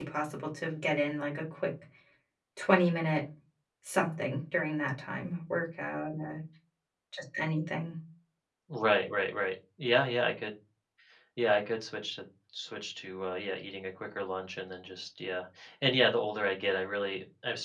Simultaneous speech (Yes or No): No